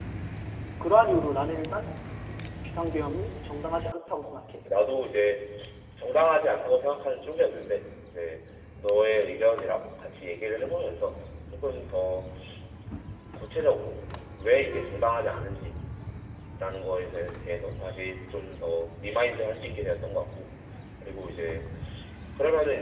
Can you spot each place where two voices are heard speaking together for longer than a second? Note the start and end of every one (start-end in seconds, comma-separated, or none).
none